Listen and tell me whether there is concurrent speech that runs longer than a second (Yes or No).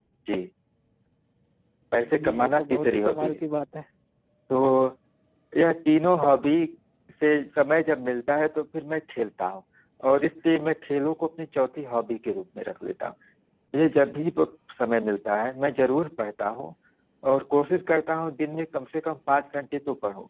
Yes